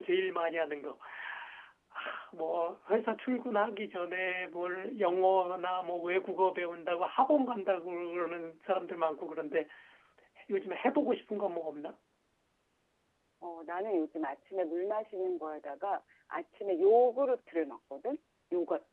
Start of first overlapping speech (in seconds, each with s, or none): none